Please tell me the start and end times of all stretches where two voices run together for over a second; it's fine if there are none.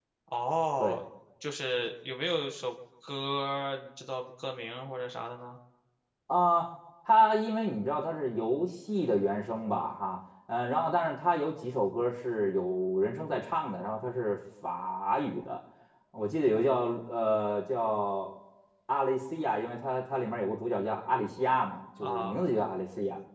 none

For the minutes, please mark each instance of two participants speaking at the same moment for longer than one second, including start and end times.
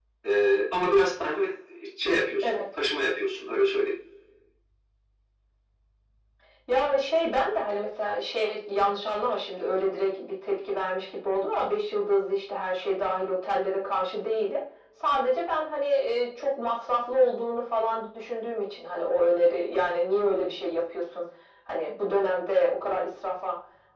none

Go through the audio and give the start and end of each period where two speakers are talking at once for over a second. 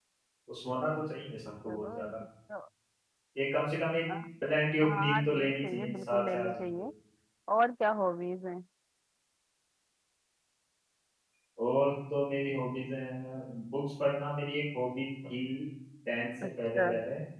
4.8-6.6

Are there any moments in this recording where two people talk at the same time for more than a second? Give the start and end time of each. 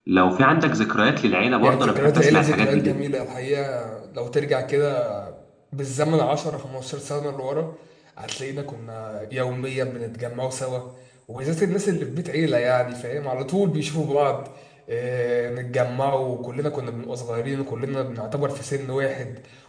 1.6-3.0

